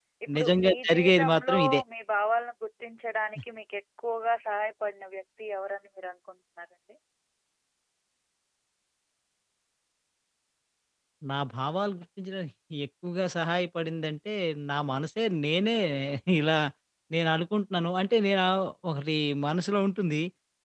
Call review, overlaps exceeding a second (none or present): present